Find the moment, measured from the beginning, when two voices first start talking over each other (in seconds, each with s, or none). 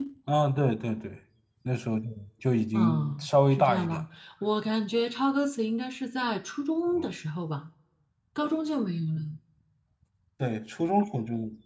2.7 s